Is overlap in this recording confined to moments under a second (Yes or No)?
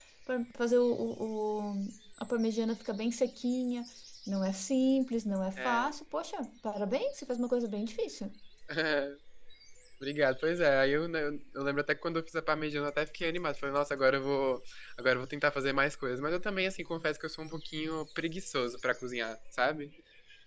Yes